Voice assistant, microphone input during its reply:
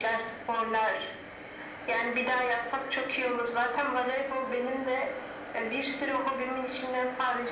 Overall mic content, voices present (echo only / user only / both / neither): echo only